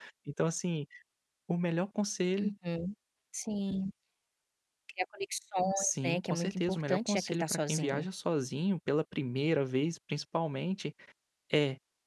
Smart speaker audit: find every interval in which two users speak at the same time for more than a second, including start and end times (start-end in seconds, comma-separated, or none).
5.8-8.1